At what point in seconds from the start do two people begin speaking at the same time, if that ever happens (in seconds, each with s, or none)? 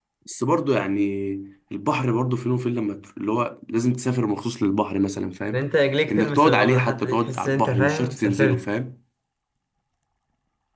6.1 s